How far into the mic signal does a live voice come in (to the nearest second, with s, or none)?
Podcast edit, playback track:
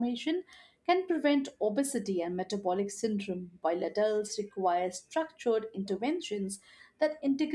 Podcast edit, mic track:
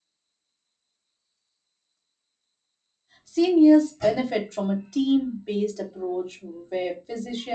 3 s